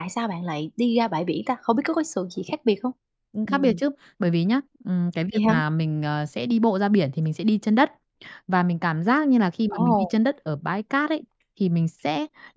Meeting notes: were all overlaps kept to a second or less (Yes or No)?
Yes